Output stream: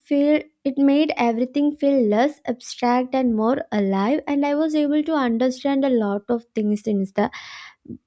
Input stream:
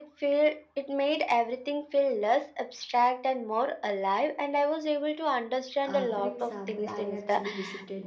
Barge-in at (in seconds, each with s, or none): 5.8 s